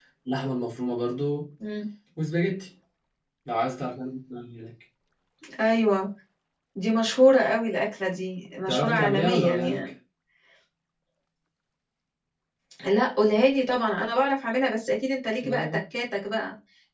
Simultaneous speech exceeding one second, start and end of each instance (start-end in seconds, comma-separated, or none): 8.7-9.9